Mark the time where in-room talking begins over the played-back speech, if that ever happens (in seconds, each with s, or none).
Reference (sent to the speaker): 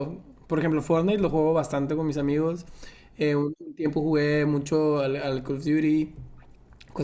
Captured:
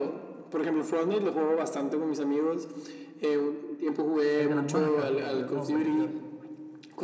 4.4 s